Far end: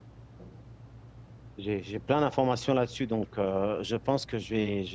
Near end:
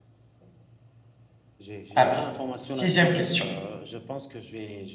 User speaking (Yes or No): Yes